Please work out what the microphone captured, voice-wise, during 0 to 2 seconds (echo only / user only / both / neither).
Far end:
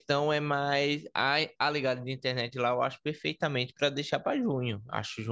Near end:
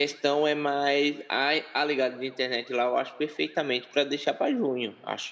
echo only